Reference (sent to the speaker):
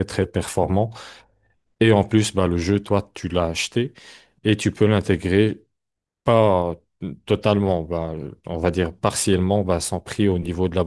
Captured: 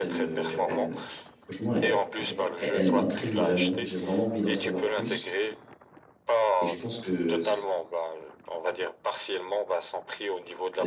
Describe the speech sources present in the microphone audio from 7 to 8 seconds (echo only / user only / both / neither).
both